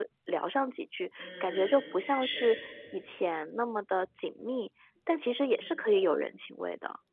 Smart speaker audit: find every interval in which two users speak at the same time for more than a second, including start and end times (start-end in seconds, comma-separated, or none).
1.2-2.4